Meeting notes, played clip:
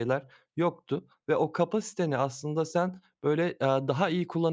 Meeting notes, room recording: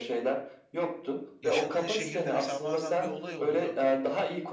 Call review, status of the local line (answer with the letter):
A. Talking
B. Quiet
A